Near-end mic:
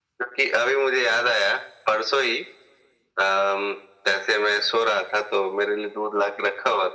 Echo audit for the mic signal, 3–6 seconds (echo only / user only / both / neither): echo only